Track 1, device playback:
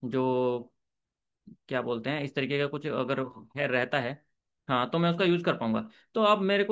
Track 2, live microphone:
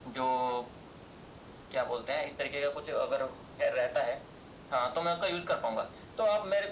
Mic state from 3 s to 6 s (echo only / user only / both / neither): echo only